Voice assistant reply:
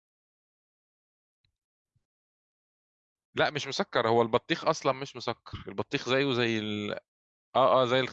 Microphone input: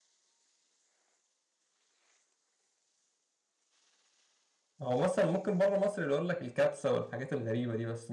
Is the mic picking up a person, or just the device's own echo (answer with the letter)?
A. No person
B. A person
B